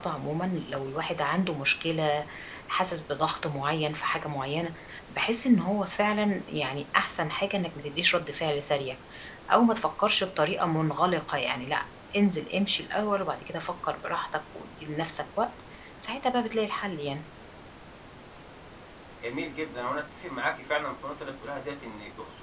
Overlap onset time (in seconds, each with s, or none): none